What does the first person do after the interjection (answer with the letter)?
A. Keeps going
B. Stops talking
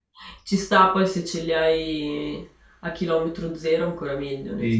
B